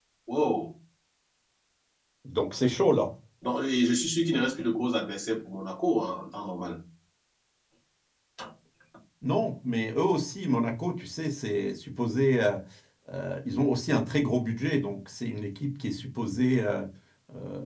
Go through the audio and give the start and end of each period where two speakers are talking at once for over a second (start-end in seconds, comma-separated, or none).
none